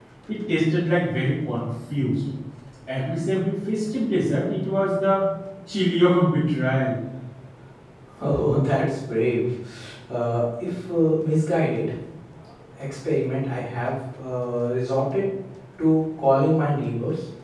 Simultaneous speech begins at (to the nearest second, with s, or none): none